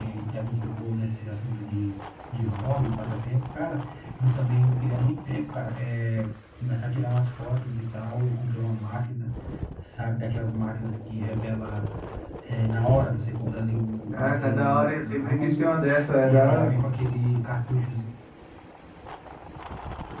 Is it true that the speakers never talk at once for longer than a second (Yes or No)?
No